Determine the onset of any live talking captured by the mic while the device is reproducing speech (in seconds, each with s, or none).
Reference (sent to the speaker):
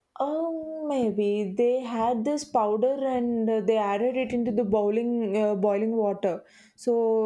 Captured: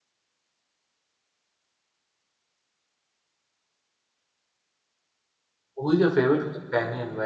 5.8 s